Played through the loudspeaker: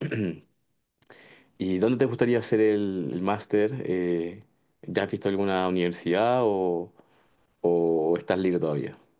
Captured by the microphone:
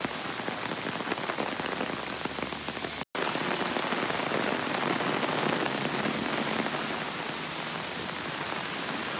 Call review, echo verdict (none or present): none